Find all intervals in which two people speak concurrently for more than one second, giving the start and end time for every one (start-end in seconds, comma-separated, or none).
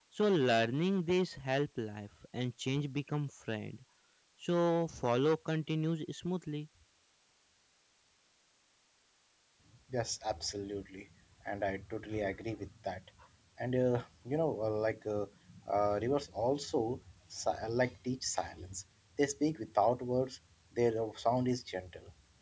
none